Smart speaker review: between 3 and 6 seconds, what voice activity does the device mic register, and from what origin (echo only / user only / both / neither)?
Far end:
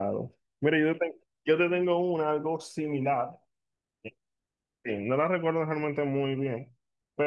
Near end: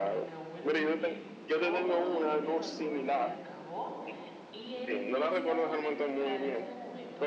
both